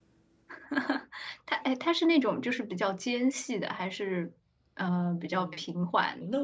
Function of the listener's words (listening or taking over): taking over